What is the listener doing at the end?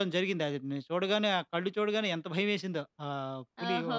taking over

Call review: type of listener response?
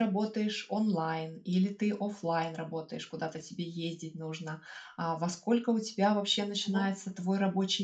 listening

